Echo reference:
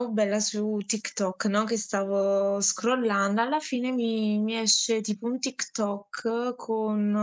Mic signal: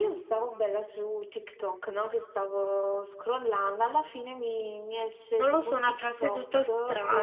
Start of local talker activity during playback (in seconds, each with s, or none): 5.3 s